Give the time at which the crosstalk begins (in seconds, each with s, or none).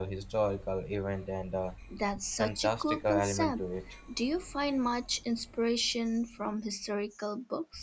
2.4 s